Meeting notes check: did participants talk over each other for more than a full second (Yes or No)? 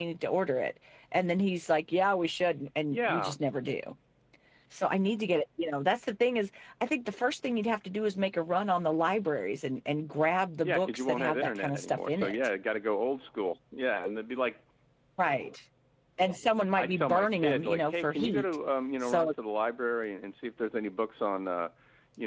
Yes